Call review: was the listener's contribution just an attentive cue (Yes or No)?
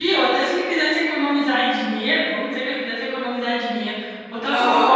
Yes